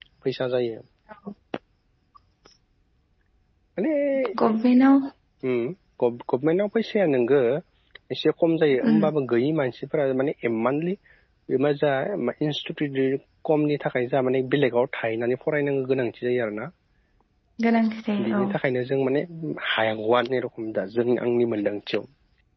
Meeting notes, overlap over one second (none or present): none